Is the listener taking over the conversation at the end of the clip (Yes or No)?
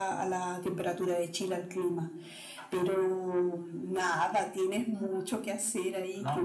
Yes